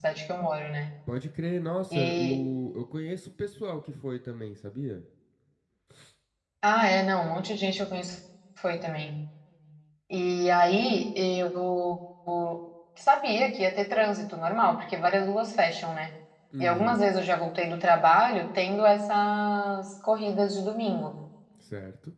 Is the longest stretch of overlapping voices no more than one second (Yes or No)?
Yes